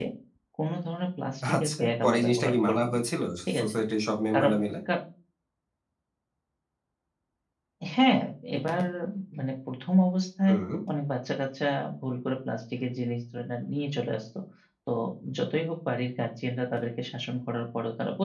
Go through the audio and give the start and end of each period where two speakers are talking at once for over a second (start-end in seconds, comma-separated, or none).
1.6-3.0